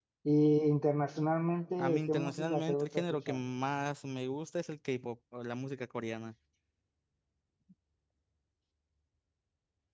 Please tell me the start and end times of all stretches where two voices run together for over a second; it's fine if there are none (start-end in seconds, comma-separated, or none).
1.8-3.4